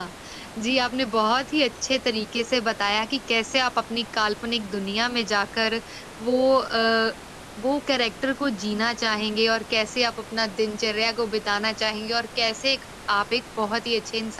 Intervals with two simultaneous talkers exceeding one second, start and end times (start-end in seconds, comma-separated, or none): none